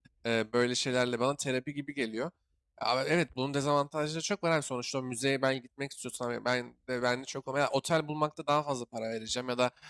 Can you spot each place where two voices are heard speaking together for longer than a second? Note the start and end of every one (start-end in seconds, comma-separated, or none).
none